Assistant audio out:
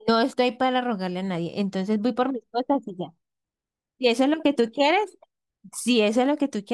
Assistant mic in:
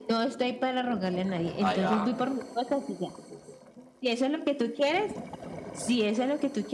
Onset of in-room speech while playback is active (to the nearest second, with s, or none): 2 s